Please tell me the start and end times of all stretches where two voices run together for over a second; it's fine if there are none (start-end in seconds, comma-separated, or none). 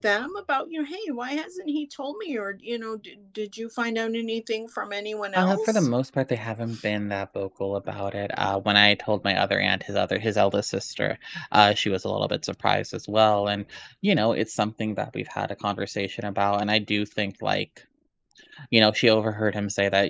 none